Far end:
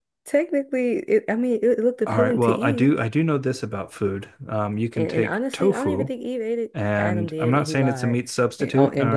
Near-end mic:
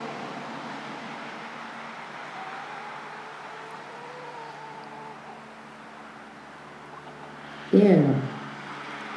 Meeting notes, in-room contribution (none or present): present